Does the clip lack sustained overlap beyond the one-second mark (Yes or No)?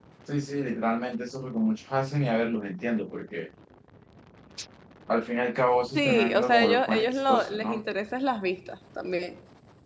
No